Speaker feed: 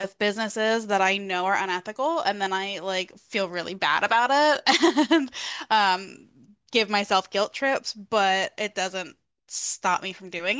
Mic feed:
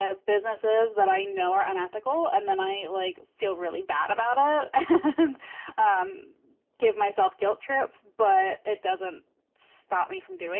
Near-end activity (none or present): none